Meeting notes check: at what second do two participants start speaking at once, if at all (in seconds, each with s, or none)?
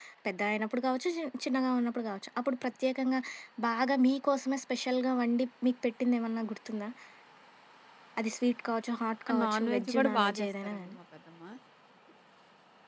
9.3 s